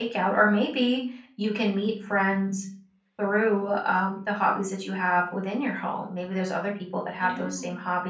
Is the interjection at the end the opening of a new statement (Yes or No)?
No